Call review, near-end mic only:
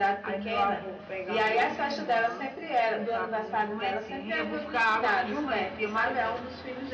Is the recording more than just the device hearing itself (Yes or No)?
No